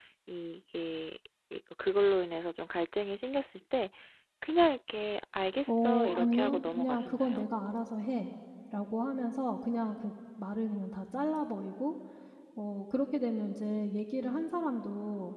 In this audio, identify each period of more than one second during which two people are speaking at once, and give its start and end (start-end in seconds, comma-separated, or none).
5.7-7.4